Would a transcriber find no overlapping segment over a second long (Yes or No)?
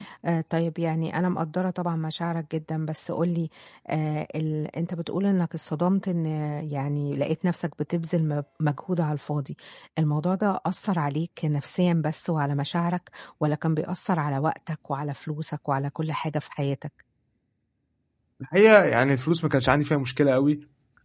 Yes